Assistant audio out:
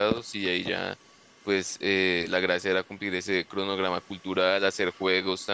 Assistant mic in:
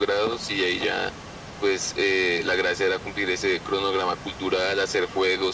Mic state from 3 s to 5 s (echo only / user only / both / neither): echo only